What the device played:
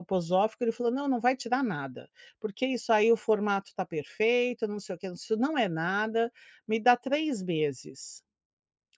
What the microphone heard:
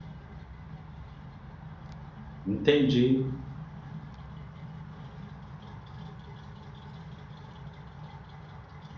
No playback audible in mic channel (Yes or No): Yes